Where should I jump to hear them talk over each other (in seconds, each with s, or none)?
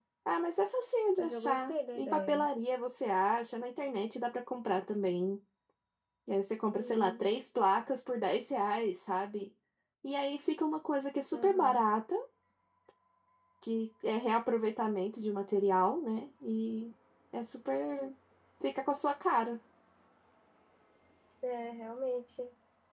1.2 s